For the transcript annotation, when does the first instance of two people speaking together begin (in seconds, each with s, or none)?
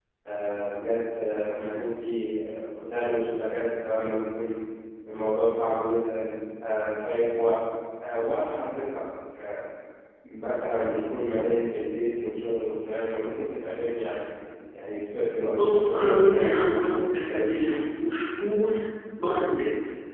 15.5 s